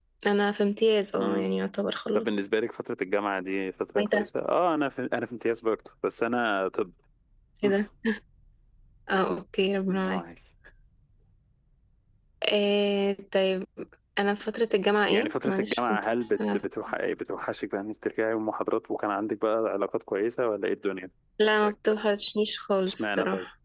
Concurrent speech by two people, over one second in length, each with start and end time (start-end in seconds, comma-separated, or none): 15.1-16.6